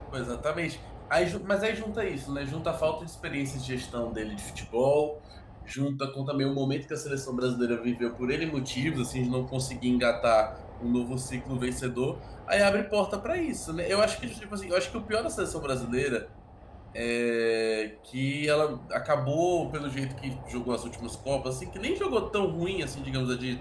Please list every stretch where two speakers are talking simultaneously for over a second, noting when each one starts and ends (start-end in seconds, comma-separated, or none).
none